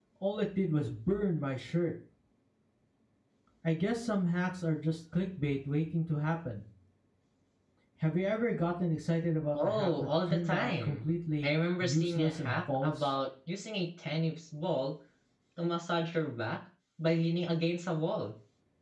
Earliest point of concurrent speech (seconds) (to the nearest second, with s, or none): 10 s